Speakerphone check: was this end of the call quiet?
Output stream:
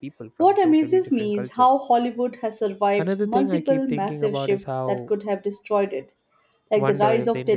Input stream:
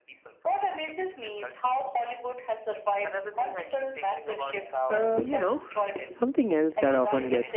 No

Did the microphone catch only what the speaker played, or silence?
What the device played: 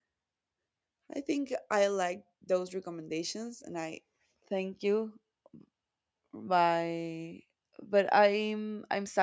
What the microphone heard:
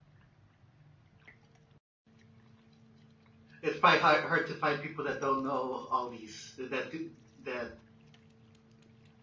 No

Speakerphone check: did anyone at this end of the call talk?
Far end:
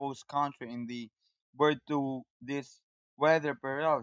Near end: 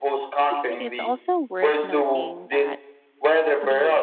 Yes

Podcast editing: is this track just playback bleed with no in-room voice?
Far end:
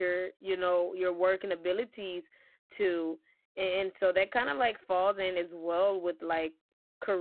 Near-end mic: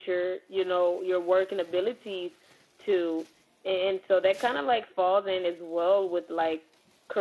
Yes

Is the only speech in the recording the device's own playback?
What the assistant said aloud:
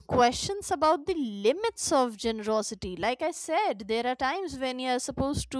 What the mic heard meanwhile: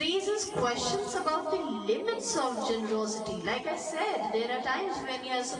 Yes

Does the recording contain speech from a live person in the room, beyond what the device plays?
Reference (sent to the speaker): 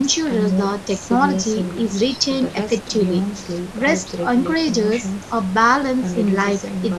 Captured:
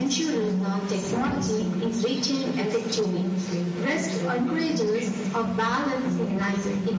No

